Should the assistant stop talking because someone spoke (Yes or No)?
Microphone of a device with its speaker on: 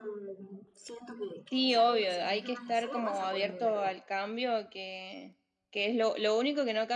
Yes